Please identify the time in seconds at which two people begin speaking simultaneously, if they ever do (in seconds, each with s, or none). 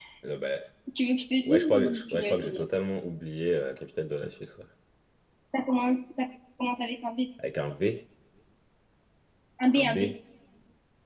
1.4 s